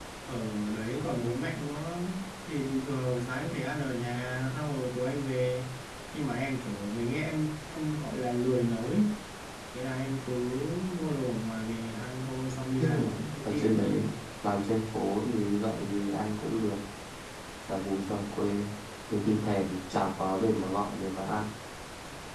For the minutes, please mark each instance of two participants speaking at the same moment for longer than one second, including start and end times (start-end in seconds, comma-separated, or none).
12.8-14.0